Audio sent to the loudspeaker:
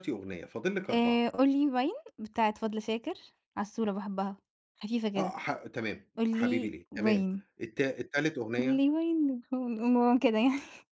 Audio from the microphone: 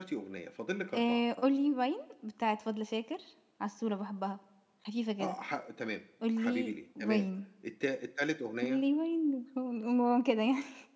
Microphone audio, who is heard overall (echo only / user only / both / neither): echo only